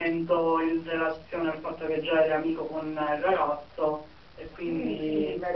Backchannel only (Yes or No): No